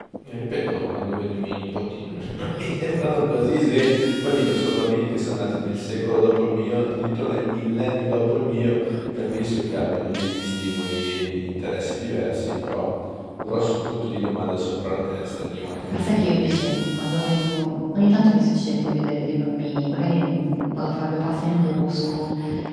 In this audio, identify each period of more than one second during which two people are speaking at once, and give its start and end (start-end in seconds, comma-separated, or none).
15.9-17.2